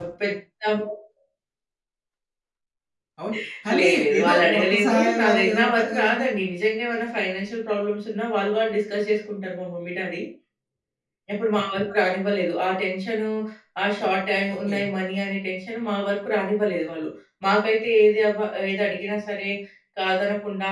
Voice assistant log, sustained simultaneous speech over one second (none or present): present